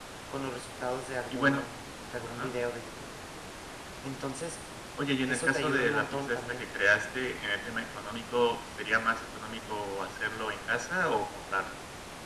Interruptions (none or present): present